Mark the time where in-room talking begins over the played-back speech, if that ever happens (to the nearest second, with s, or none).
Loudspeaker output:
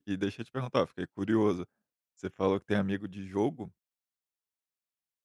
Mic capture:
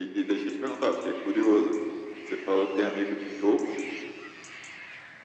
none